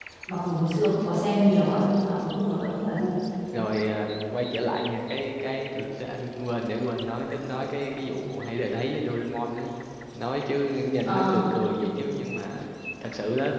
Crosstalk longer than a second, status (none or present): none